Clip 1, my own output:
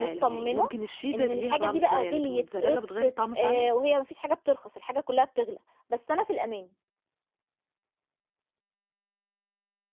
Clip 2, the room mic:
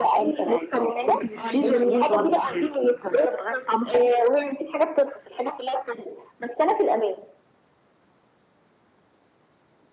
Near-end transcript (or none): آه، الجِبَن برضه